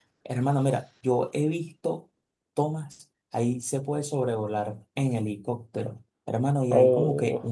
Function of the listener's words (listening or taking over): listening